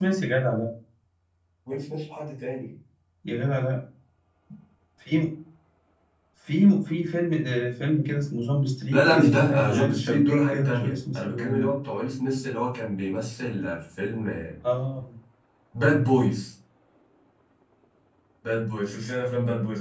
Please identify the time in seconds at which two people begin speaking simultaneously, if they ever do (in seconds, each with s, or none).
8.9 s